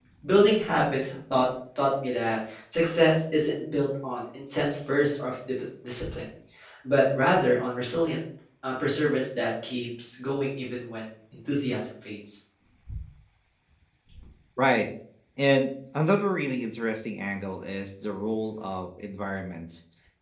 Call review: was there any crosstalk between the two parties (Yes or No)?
No